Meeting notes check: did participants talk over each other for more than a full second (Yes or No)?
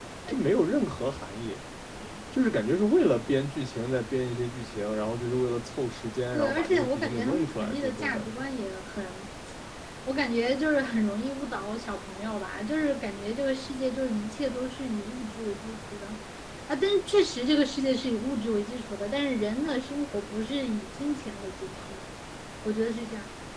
Yes